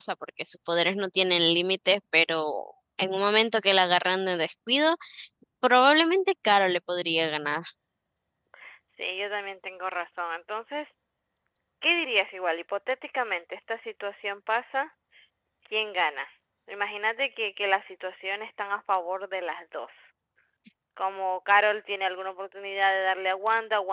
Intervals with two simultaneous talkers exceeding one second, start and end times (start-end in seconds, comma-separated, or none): none